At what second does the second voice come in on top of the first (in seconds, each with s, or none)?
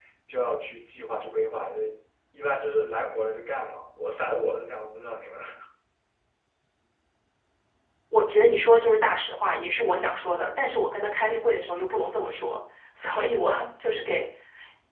none